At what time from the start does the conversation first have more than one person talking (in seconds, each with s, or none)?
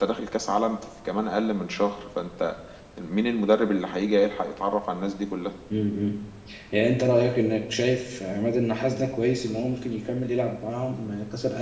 none